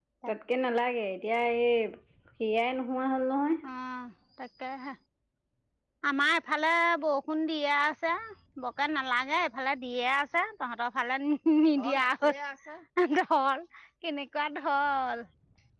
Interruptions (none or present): none